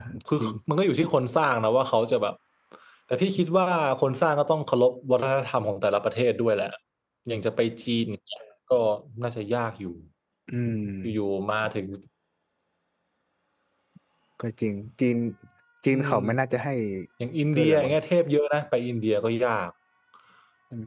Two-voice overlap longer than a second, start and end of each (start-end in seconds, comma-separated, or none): none